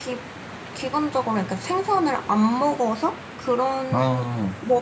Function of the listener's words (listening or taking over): listening